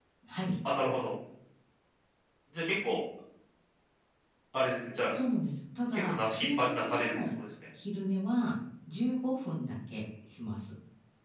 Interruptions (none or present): present